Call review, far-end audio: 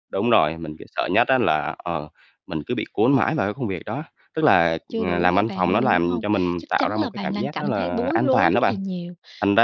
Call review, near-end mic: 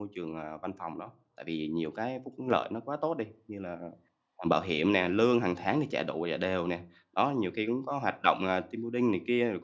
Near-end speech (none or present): present